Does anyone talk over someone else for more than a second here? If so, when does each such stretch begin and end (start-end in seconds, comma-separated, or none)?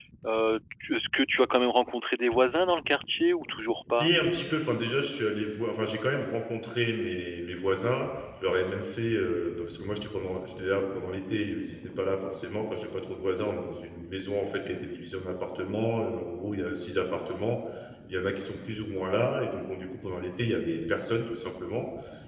none